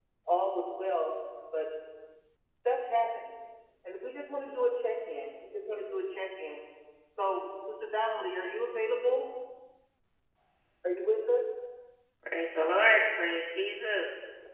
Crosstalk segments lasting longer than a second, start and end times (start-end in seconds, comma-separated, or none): none